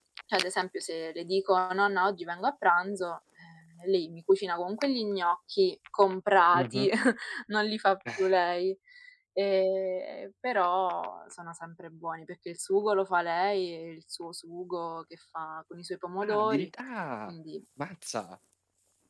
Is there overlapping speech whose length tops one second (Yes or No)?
No